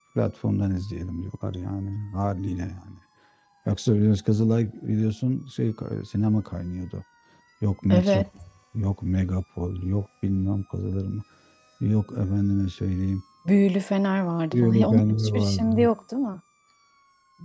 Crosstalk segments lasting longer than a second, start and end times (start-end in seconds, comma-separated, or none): 14.5-15.9